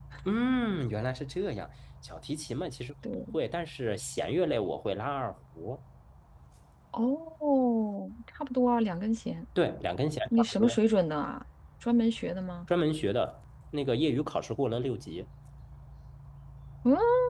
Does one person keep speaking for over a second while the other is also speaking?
No

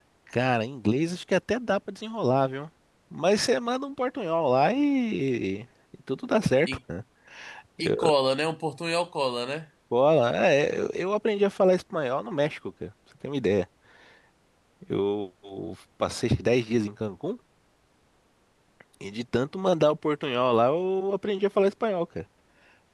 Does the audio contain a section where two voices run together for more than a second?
No

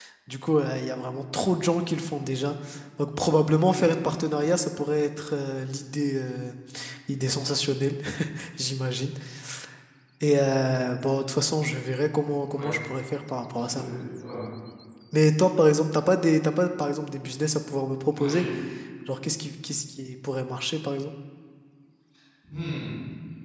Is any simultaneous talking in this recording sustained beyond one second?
No

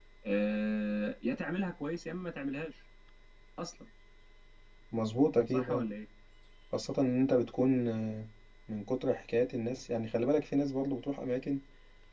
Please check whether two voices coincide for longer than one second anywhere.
No

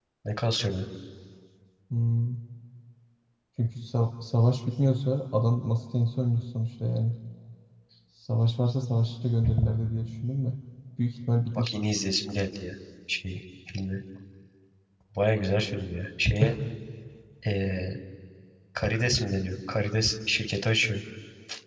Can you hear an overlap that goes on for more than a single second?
No

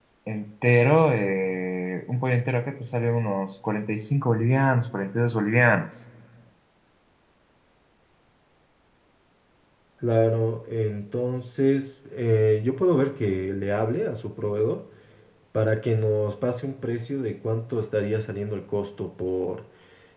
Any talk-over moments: No

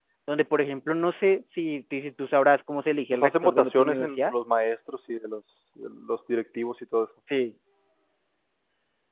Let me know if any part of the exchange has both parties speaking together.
Yes, from 3.1 s

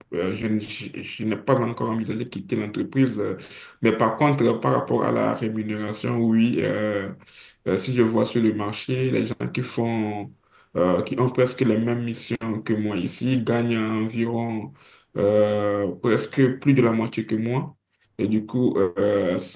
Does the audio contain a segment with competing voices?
No

